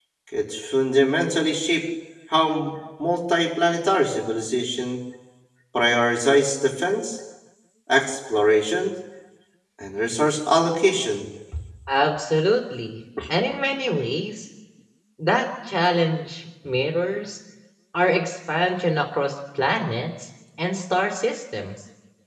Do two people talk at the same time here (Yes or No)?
No